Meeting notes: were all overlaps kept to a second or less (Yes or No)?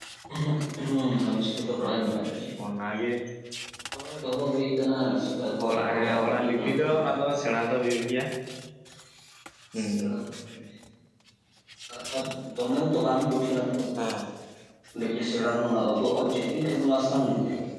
No